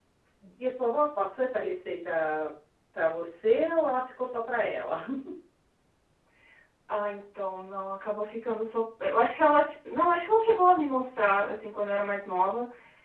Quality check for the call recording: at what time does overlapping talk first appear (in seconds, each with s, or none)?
none